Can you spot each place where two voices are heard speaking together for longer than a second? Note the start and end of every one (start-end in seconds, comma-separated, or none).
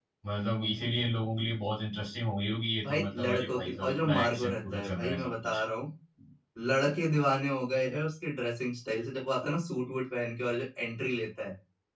2.9-5.6